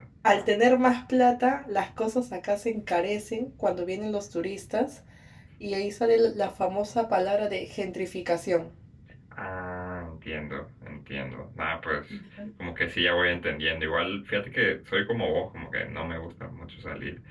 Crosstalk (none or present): none